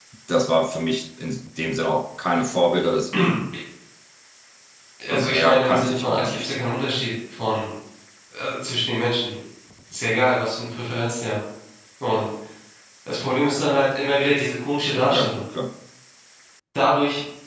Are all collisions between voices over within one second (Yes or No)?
No